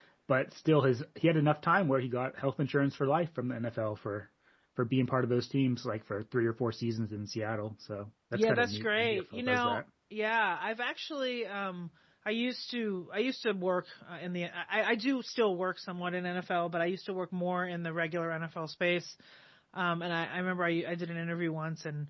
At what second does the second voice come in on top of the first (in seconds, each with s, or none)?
8.3 s